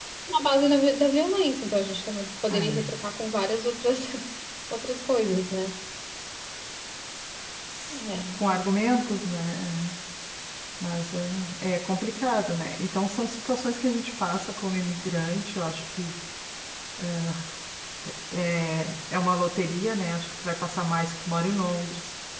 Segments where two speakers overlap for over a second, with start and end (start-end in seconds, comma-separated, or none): none